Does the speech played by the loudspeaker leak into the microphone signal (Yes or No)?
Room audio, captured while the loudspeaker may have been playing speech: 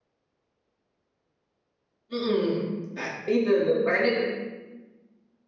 No